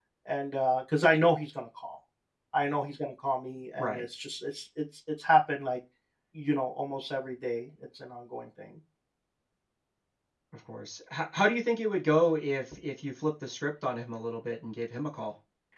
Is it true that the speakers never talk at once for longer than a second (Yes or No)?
Yes